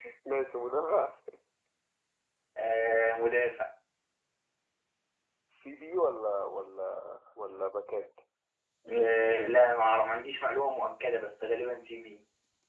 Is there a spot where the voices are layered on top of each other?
No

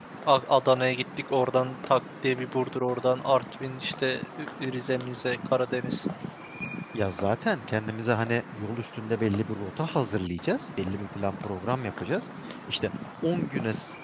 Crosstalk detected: No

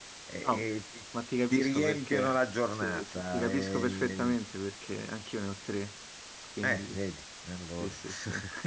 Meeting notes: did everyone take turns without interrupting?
No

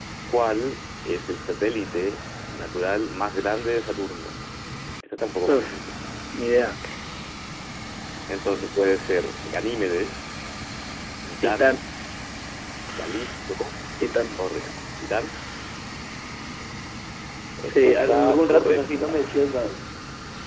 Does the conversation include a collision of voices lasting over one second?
Yes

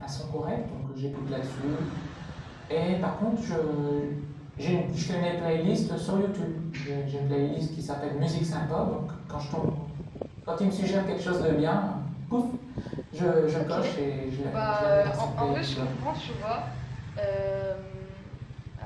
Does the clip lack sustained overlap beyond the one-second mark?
No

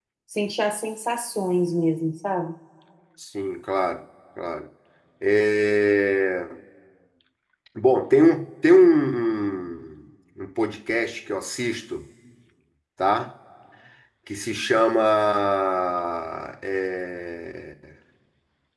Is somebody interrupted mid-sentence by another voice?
No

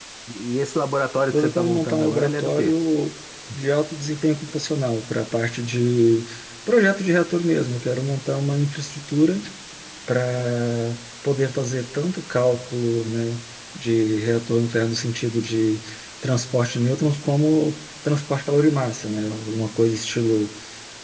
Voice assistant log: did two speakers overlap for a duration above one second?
Yes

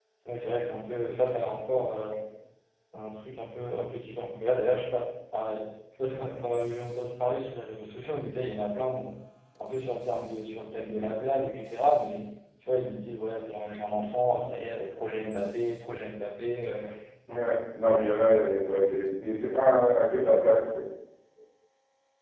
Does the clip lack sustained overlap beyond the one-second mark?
Yes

